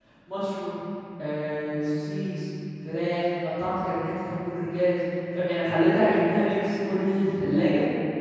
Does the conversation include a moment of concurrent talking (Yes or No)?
No